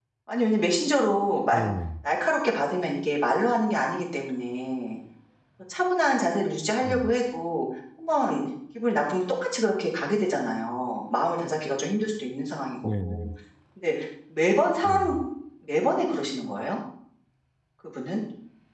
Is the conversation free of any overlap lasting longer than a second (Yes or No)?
Yes